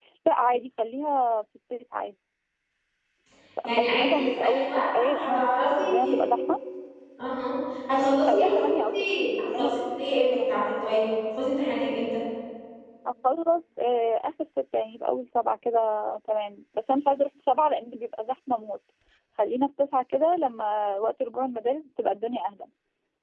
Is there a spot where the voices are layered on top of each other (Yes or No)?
Yes